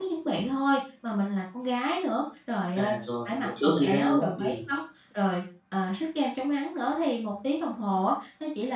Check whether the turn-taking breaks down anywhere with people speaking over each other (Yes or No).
Yes